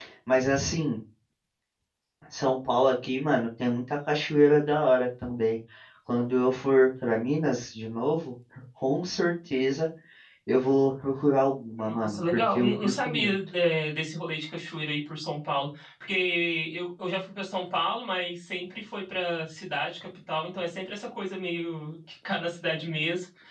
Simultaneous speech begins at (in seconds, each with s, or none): 11.8 s